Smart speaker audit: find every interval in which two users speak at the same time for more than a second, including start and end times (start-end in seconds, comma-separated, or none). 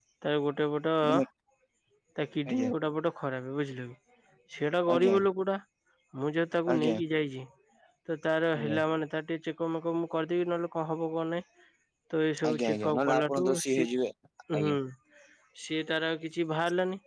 12.5-13.9